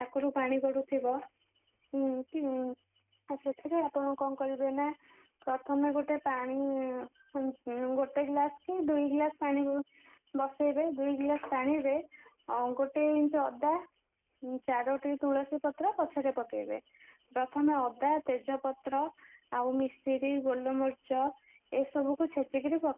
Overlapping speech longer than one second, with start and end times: none

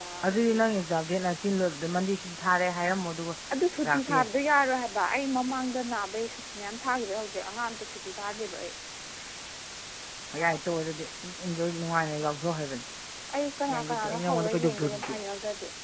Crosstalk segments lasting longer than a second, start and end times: 13.7-15.2

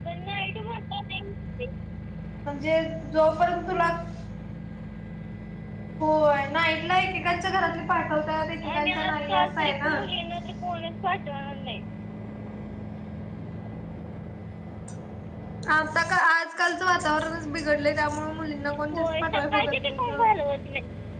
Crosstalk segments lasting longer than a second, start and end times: 8.7-9.9, 18.9-20.3

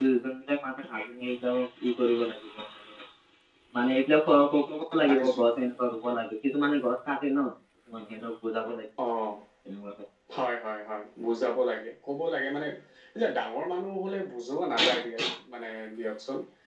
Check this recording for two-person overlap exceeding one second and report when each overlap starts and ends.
none

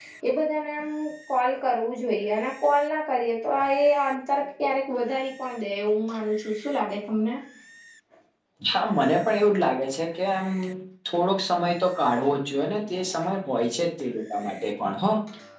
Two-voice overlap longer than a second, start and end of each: none

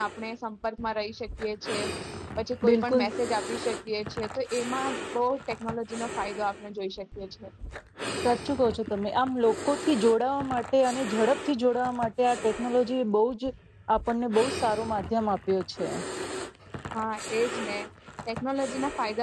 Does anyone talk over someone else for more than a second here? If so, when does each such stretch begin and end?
none

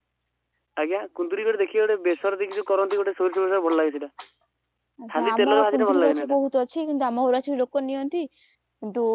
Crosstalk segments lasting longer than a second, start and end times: 5.2-6.4

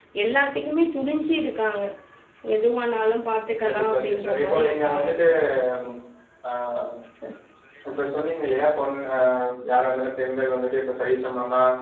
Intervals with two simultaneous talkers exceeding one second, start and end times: 3.6-5.1

